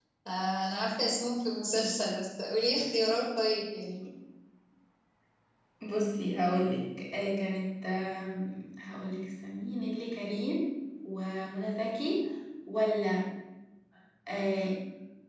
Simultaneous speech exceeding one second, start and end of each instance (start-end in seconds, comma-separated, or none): none